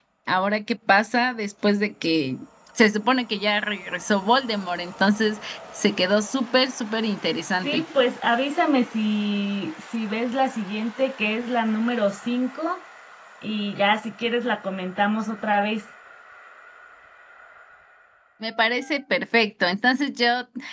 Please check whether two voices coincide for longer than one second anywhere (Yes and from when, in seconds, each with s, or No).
No